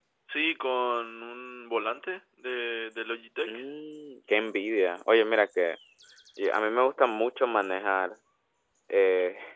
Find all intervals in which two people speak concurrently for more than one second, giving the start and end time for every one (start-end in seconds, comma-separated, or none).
none